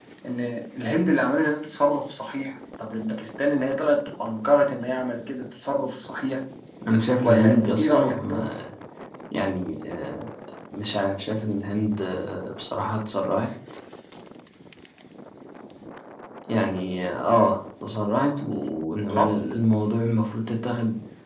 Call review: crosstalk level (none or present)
present